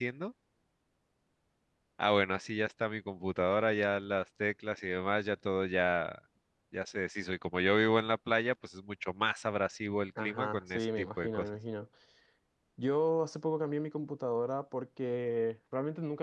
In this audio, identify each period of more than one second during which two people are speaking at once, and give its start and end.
10.2-11.5

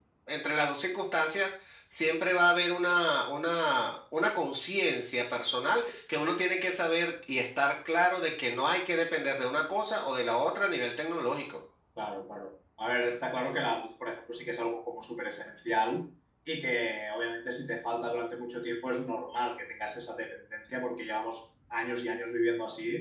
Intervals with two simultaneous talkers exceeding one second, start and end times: none

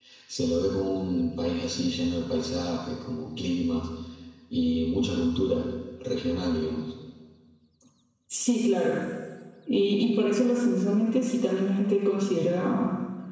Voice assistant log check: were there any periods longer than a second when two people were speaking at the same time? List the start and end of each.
none

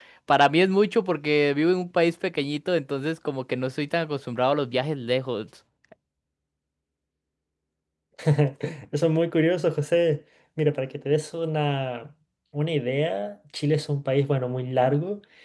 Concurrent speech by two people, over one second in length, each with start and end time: none

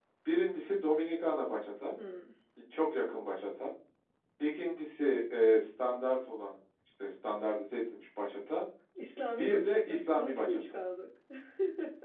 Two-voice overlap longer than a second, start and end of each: 9.4-10.6

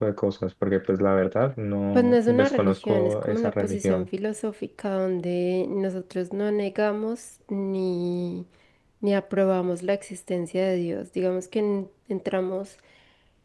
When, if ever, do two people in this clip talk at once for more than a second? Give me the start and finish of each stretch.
1.9-4.1

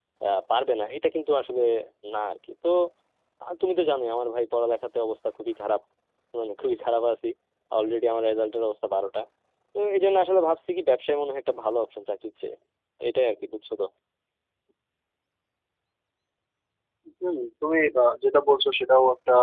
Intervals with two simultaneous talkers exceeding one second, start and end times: none

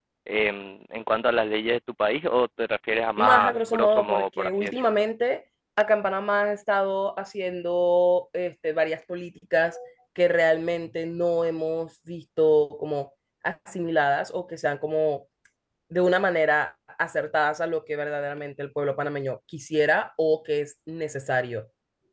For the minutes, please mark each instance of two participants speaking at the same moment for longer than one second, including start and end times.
3.2-4.9

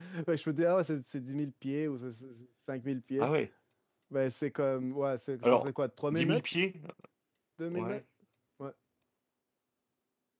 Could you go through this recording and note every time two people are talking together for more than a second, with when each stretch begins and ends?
none

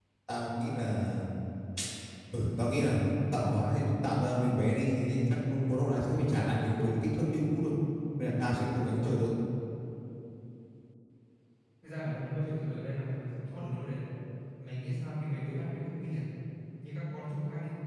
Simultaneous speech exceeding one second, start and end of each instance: none

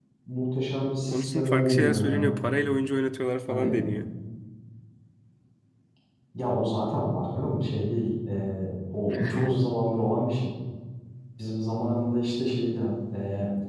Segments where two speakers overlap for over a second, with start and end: 1.1-2.4

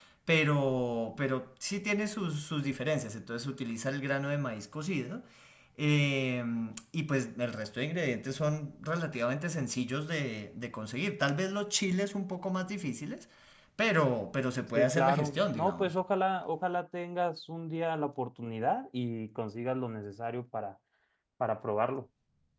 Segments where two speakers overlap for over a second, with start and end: 14.8-16.0

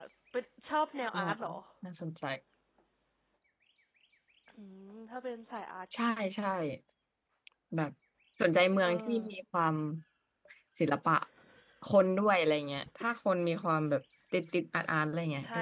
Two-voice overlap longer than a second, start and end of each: none

